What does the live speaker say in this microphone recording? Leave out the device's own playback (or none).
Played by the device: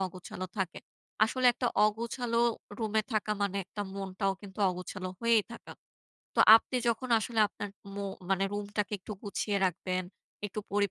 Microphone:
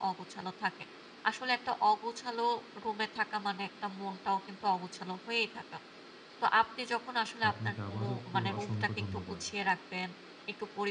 তো আপনাকে আবারও খু অসংখ্য ধন্যবাদ।